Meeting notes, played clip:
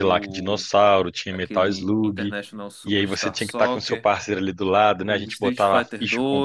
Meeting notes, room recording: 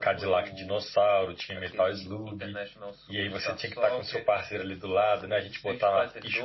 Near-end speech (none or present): none